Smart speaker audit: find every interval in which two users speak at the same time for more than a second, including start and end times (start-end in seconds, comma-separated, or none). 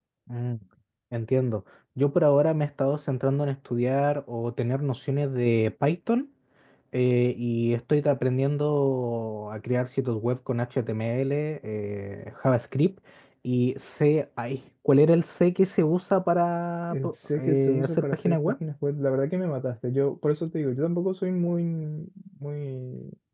16.9-18.4